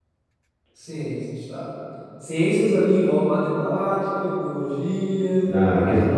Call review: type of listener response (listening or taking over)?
taking over